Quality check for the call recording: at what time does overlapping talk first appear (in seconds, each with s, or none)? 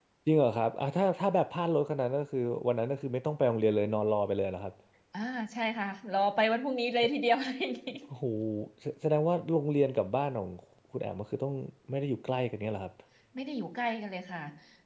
none